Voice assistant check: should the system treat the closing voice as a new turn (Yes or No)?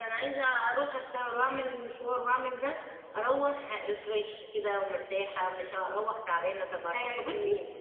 Yes